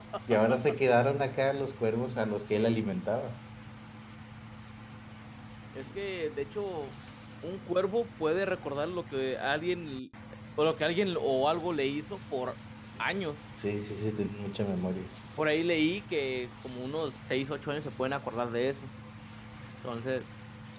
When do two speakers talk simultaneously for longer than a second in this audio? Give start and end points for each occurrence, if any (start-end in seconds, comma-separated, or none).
none